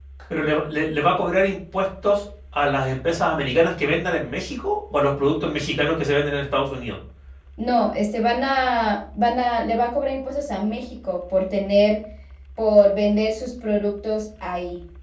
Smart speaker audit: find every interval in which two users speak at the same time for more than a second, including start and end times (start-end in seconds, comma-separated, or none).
none